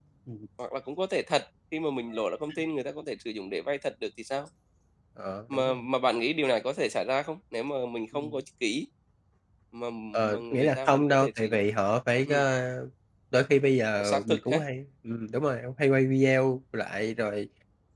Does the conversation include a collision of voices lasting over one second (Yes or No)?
Yes